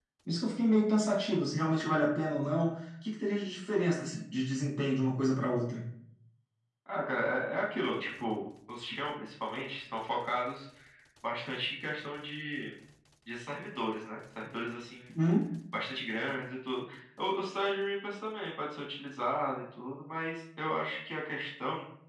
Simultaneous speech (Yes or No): No